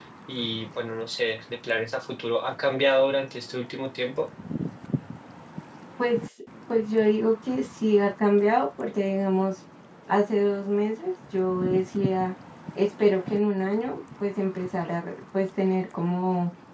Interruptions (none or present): none